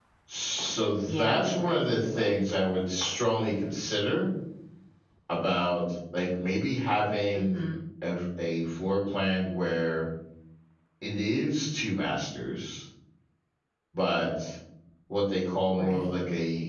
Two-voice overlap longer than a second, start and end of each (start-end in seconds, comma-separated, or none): 1.0-2.3